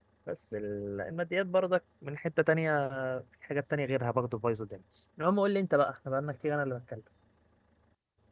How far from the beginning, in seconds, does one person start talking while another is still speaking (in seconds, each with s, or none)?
none